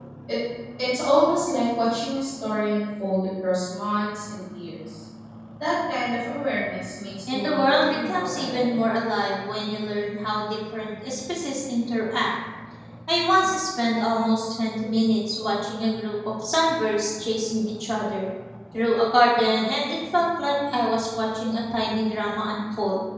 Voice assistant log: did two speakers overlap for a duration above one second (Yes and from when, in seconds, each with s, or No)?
Yes, from 7.3 s